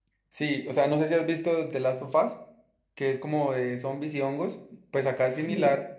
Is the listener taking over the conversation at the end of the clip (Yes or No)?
No